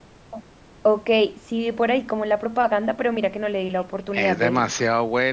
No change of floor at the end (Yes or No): No